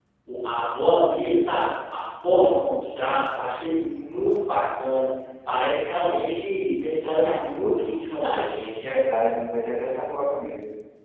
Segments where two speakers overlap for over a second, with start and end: none

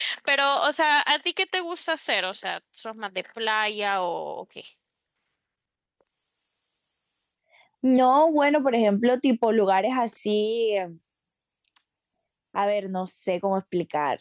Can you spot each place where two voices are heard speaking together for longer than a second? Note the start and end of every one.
none

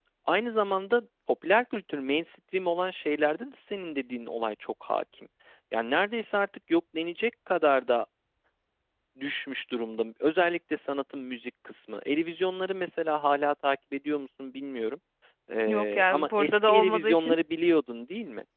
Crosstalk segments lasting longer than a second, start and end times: 15.7-17.4

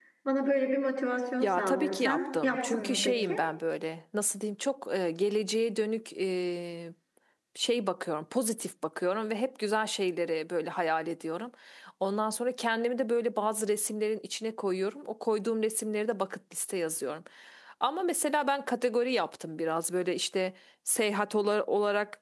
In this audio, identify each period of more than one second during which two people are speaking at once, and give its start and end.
1.4-3.4

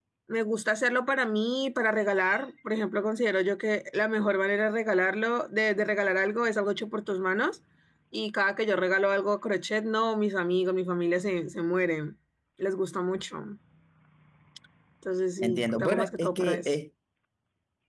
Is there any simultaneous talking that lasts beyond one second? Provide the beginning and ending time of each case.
15.4-16.8

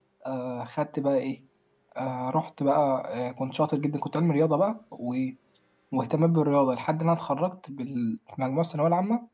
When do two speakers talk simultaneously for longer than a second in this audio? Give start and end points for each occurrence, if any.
none

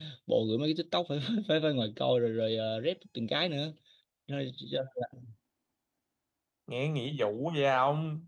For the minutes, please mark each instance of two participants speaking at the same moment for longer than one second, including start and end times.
none

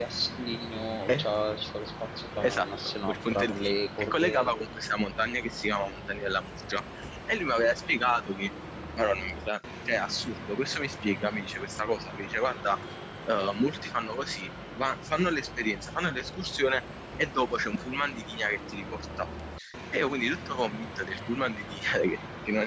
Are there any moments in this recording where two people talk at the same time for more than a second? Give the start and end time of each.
2.4-4.4

